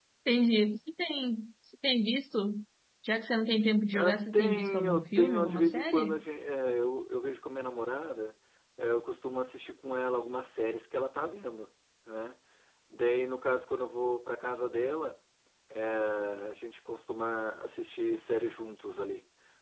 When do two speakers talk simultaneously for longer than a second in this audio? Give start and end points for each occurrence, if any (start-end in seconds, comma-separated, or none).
3.9-6.2